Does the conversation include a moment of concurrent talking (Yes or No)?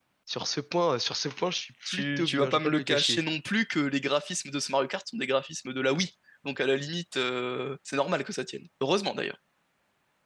Yes